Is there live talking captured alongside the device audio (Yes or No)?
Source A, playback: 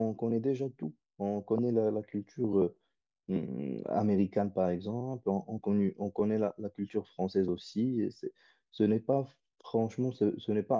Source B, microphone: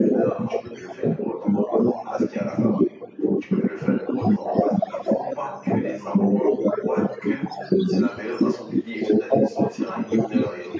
Yes